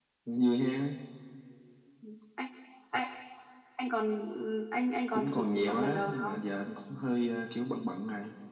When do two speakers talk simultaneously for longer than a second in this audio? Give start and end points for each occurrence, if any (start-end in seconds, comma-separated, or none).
5.1-6.4